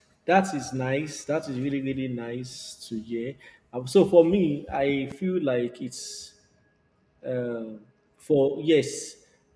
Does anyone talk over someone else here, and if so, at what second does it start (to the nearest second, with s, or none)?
none